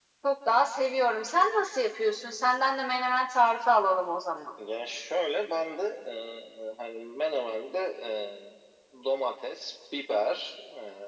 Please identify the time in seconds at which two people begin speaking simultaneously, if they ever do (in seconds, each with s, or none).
none